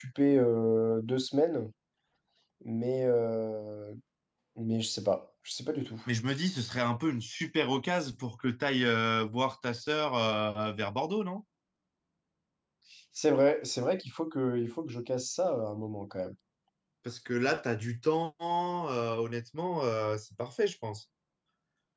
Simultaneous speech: No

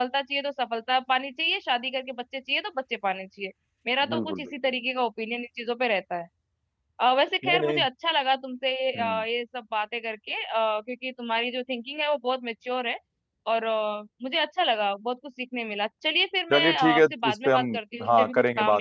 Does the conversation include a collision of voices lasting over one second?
Yes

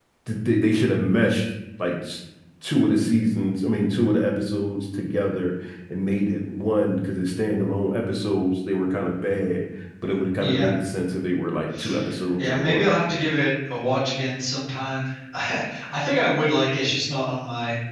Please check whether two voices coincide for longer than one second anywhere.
No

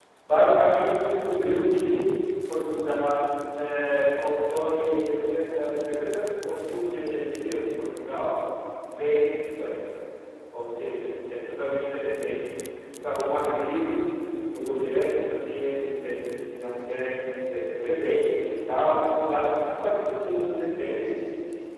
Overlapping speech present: No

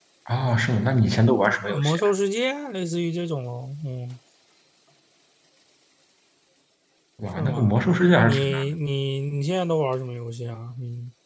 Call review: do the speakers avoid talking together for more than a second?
Yes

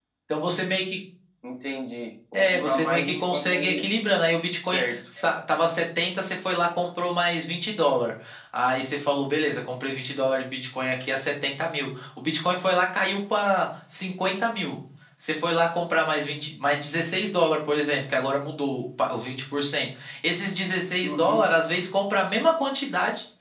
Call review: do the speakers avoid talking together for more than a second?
No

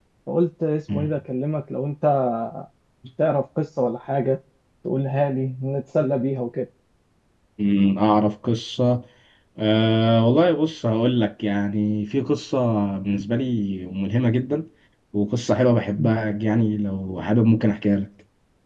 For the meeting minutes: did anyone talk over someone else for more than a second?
No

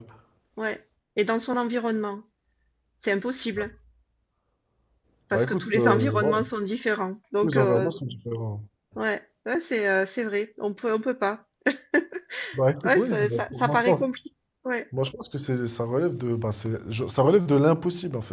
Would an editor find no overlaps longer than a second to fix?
No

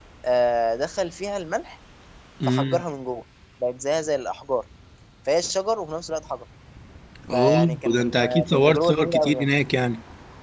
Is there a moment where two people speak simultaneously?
Yes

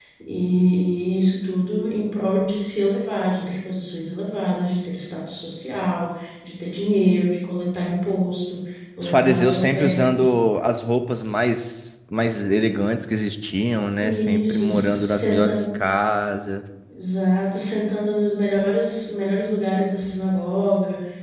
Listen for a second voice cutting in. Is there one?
Yes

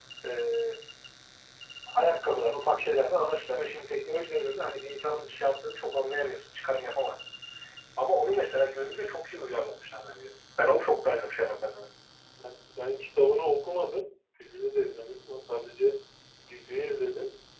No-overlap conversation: Yes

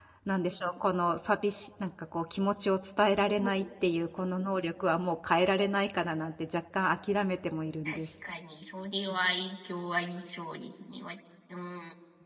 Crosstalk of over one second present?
No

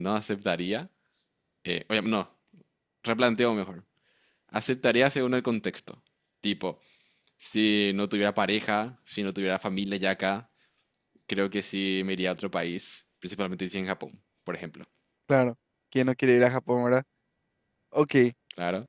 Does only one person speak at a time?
Yes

